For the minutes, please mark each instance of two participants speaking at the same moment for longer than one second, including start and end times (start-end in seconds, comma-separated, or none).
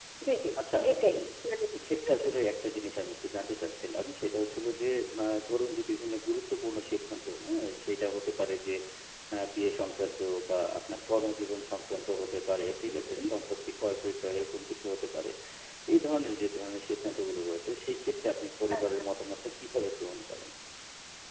none